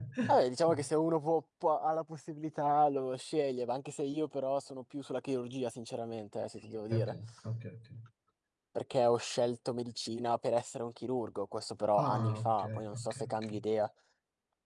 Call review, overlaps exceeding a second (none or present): present